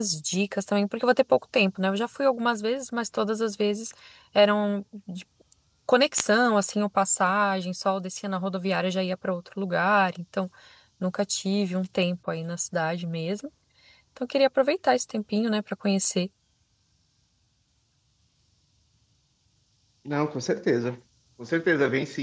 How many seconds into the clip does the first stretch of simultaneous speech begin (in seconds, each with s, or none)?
none